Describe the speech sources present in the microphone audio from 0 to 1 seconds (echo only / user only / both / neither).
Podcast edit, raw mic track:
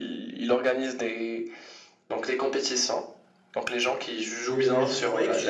echo only